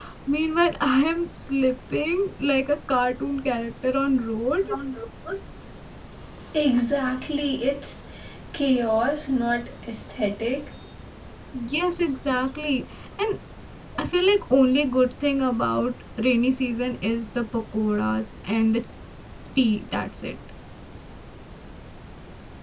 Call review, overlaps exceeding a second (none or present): none